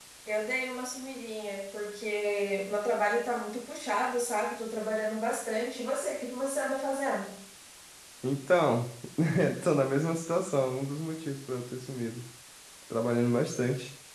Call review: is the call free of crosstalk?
Yes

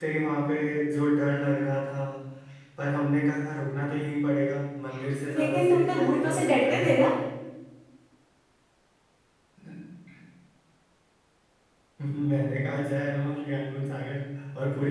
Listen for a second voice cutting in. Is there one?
Yes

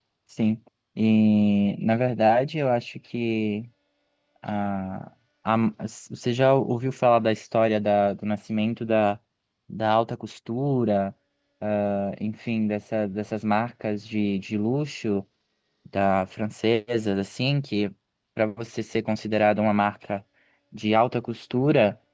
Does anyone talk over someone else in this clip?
No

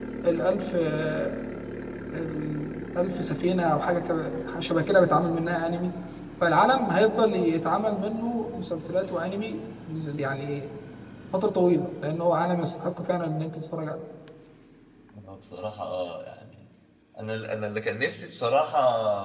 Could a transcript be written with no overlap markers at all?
Yes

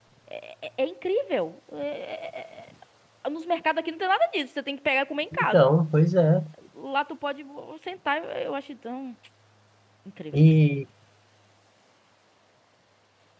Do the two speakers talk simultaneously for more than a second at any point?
No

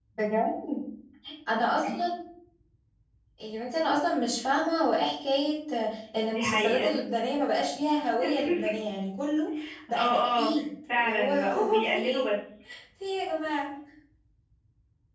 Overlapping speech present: Yes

